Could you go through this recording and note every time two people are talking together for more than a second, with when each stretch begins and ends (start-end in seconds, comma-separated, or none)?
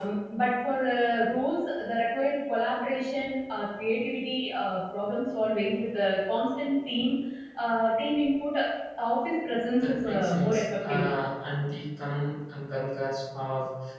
9.8-11.1